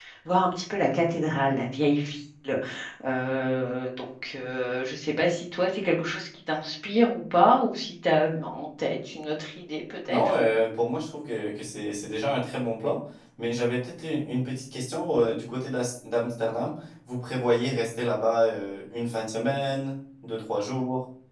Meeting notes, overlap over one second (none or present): none